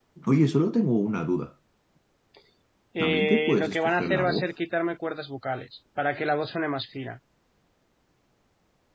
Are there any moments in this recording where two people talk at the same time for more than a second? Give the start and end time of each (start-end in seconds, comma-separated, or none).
3.0-4.5